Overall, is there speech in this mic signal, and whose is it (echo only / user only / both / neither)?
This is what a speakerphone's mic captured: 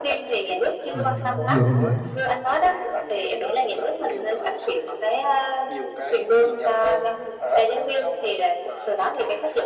both